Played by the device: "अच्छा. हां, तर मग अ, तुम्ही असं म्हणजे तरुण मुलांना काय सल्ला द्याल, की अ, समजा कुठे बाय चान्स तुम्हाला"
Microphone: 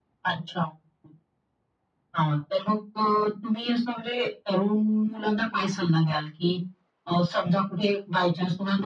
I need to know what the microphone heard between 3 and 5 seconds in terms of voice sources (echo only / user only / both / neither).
echo only